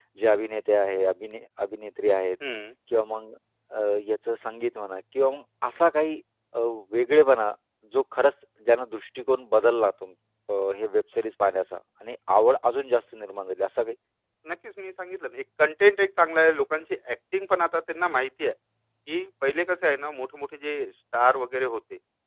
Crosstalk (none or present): none